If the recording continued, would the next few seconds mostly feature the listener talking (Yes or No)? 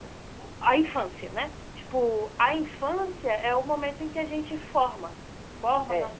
No